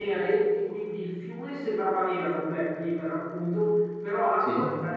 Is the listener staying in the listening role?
Yes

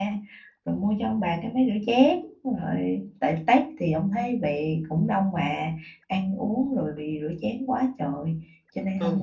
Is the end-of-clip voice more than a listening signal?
Yes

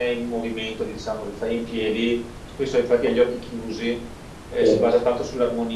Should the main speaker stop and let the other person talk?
No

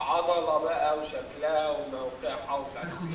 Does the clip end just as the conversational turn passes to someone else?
Yes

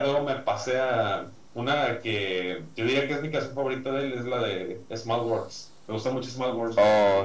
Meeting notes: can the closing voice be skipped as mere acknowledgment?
No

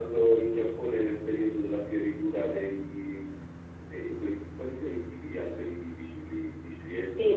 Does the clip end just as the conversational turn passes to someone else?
Yes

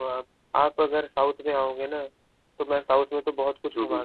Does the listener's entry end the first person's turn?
No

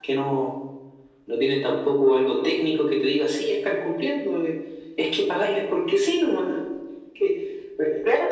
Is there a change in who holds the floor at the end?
Yes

